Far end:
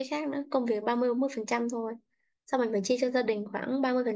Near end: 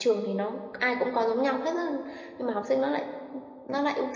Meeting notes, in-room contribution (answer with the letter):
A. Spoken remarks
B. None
A